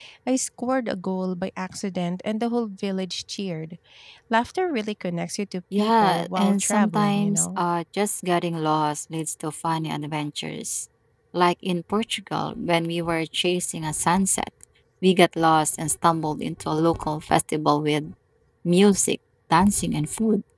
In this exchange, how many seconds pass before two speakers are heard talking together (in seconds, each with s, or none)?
5.7 s